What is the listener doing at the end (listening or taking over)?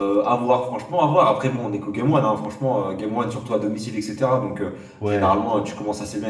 listening